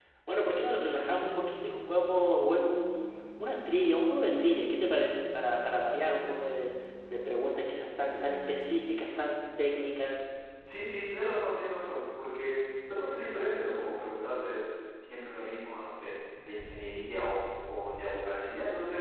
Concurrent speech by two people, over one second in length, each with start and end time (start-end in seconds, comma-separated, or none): none